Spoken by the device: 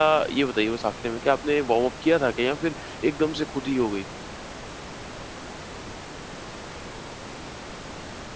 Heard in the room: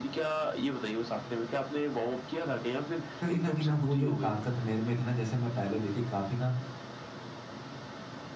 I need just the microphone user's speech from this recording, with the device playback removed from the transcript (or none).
कहीं न कहीं ना वो जो ताकत मेरे में थी ना जैसे मैं पहले देखिए काफ़ी ना